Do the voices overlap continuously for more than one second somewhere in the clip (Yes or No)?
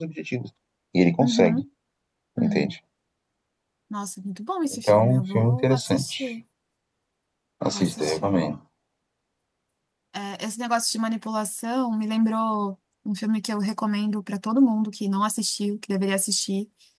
Yes